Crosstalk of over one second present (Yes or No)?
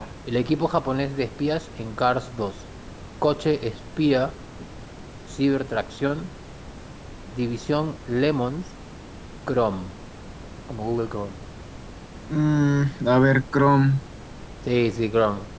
No